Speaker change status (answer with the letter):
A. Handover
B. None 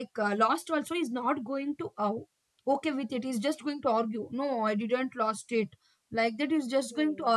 B